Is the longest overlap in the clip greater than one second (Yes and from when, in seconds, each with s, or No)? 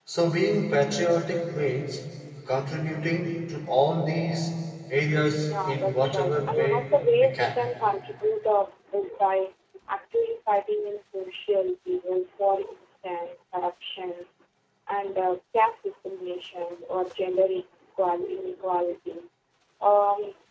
Yes, from 5.5 s